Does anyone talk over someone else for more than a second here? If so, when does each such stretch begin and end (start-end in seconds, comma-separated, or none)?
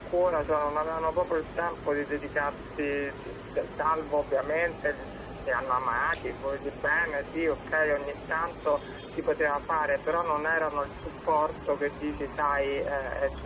none